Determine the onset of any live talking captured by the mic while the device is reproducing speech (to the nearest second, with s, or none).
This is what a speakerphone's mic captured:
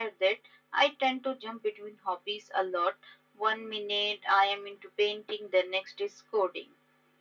none